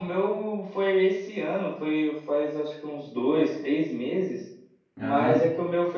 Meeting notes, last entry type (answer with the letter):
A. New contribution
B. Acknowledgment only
B